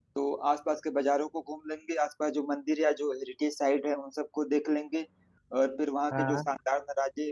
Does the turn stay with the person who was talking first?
Yes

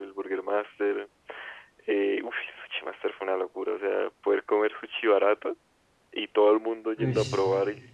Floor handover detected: No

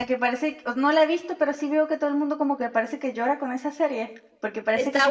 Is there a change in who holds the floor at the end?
Yes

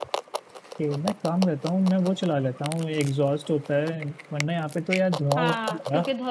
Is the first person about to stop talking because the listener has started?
Yes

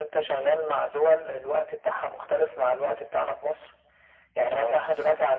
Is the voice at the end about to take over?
No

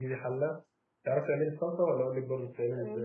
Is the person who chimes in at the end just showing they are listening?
No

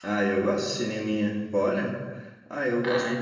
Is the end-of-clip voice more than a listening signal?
No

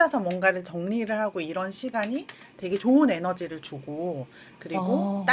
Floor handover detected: No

